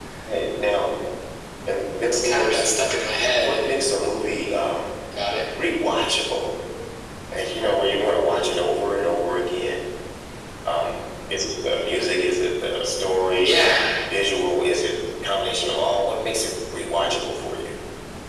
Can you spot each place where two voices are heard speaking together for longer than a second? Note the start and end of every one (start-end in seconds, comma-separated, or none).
none